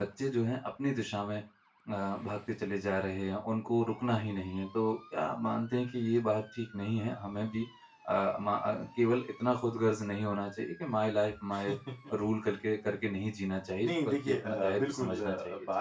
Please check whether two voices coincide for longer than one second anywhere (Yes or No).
Yes